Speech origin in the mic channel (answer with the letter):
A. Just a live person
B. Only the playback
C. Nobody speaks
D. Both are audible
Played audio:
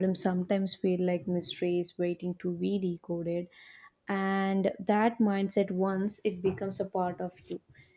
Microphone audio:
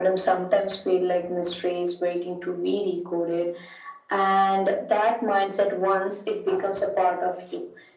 B